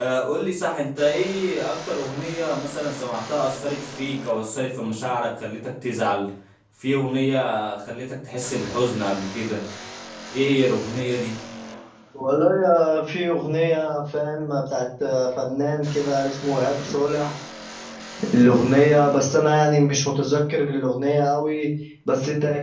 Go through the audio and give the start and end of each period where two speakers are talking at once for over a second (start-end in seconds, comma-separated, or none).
none